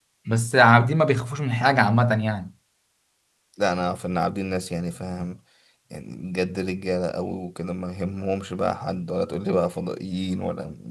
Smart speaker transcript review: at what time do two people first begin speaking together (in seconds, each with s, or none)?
none